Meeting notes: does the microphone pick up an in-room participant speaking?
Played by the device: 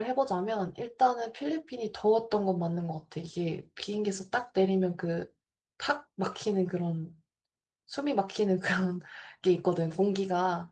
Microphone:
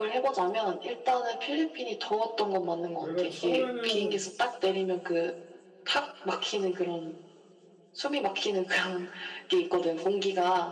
Yes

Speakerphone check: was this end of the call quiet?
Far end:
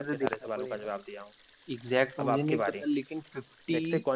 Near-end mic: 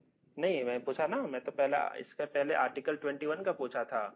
No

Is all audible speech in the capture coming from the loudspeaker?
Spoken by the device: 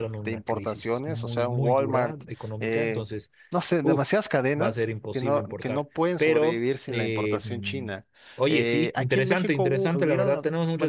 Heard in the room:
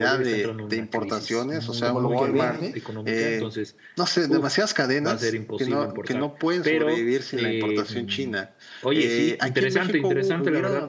No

